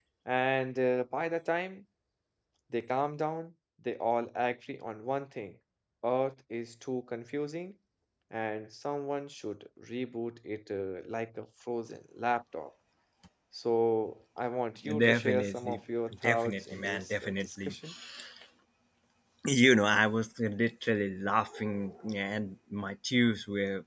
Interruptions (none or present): present